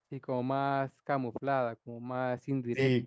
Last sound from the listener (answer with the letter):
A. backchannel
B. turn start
B